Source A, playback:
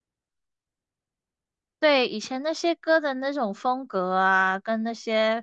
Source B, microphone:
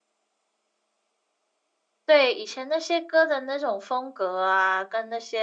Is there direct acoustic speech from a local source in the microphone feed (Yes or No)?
No